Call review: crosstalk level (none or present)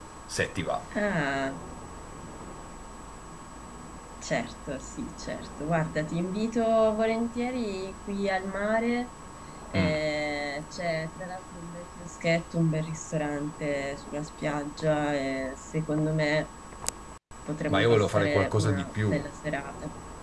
present